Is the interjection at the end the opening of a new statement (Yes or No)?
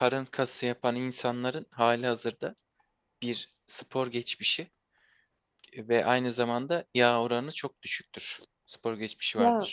No